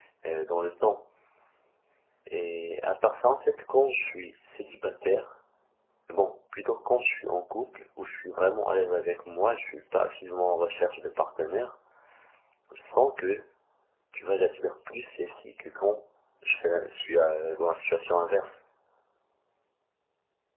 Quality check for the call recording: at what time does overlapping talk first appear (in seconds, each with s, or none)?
none